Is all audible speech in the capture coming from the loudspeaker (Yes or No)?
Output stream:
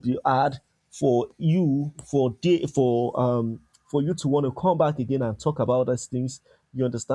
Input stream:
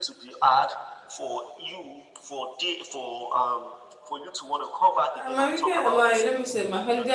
No